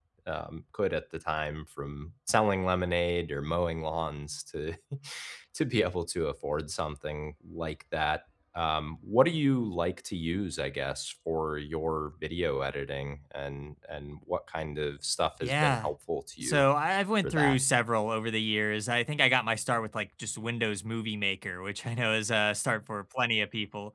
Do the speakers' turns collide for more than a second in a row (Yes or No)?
No